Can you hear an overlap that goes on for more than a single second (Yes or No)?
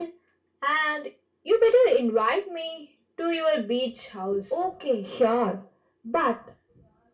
No